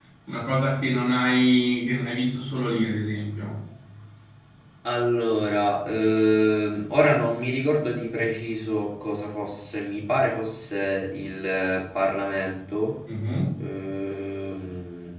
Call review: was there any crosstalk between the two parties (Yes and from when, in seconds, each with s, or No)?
No